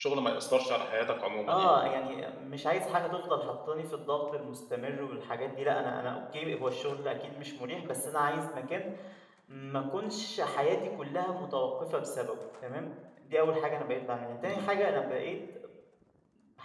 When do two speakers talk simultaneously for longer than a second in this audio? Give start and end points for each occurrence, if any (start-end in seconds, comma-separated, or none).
none